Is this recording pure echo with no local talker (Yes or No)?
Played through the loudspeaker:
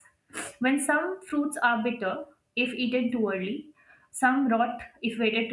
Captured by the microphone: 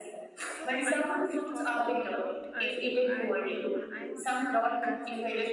No